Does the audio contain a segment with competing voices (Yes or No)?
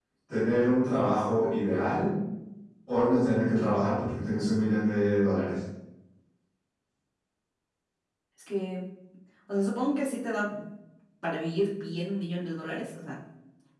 No